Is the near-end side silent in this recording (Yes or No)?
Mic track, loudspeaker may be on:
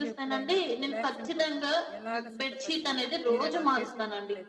No